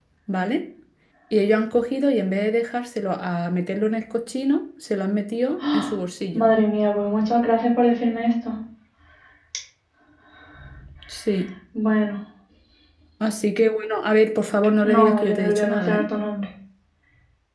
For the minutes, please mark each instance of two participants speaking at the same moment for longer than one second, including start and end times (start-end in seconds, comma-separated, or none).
14.8-16.1